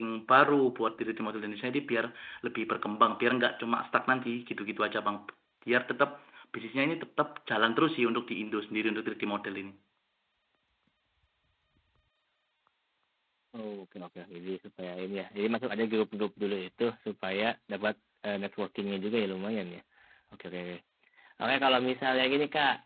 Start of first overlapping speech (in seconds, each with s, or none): none